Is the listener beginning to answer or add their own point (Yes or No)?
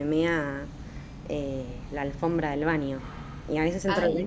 No